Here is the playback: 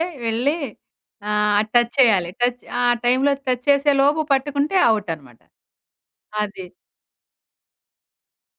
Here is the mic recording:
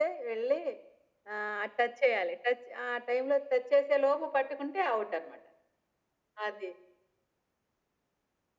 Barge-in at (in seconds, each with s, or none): none